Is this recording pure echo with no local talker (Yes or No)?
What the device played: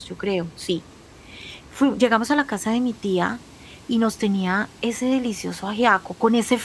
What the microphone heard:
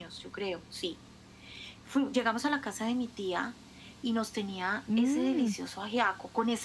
No